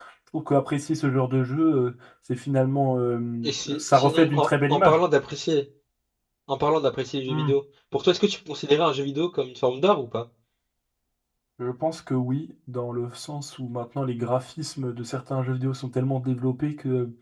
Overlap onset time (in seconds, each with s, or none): 3.4 s